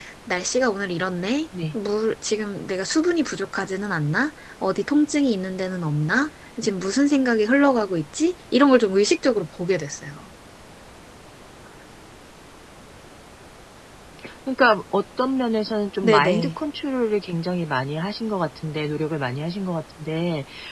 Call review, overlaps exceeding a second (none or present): none